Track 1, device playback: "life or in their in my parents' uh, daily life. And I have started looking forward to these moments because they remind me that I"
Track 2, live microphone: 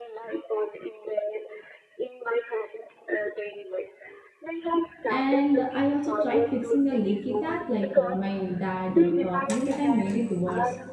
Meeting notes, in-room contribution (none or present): present